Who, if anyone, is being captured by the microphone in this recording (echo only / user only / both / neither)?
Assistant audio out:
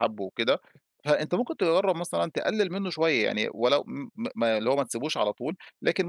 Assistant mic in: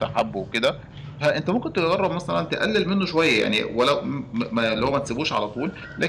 echo only